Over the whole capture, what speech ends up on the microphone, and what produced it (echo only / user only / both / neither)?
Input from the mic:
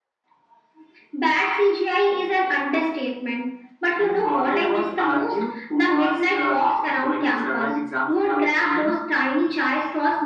echo only